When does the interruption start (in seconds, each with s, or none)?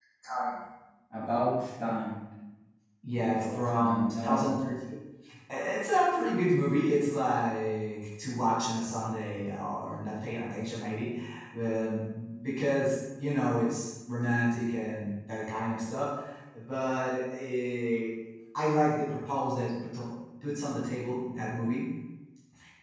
3.2 s